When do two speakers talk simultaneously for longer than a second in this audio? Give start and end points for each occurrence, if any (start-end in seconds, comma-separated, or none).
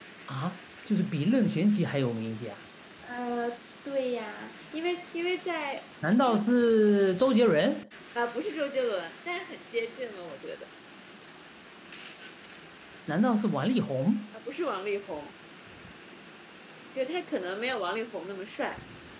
none